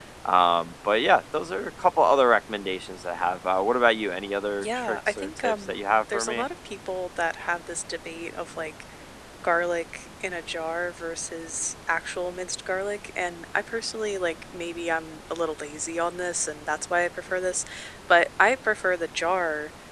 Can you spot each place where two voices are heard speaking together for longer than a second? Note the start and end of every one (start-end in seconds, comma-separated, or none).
4.6-6.5